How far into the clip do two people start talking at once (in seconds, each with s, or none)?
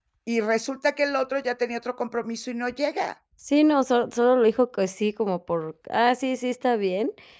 none